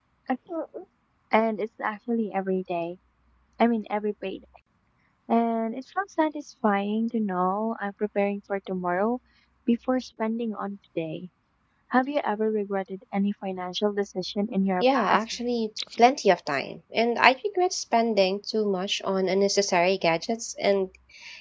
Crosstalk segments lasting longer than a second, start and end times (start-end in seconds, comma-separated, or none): none